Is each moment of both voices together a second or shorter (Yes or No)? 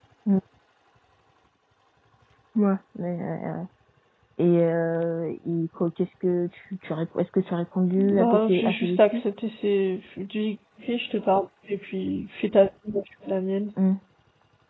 No